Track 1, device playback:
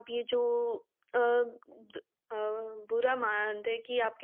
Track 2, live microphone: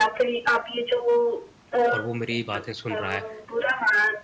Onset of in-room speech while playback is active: 1.9 s

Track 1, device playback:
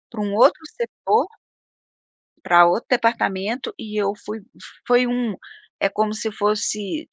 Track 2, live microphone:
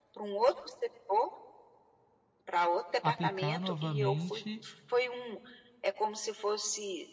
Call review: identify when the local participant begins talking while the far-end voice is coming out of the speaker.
3.0 s

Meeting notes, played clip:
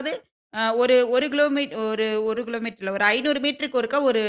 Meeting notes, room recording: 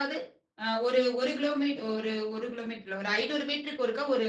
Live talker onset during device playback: none

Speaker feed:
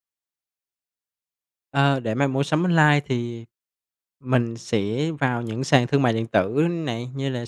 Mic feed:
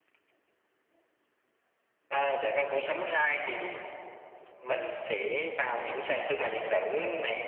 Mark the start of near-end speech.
none

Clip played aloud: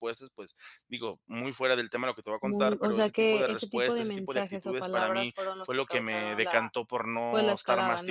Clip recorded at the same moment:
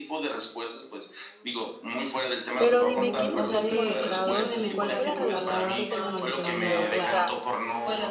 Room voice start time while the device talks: 2.6 s

